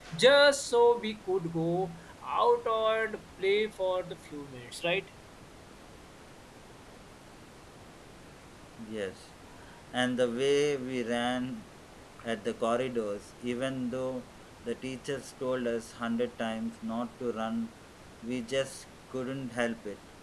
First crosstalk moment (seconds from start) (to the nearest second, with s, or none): none